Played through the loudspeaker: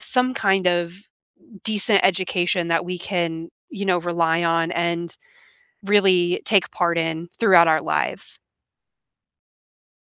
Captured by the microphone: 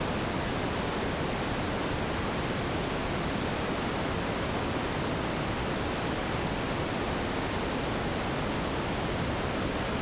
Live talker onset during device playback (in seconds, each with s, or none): none